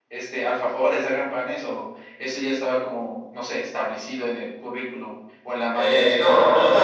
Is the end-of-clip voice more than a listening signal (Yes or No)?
Yes